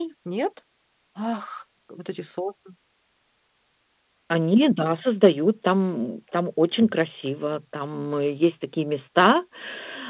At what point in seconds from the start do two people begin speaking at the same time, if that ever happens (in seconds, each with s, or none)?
none